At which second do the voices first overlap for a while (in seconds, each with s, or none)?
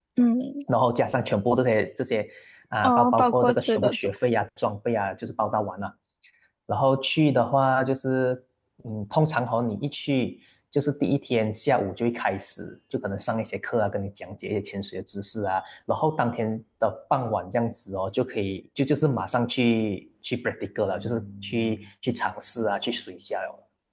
2.8 s